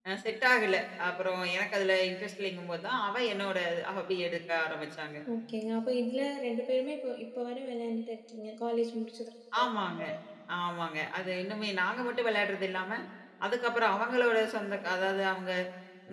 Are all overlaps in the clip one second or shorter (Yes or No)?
Yes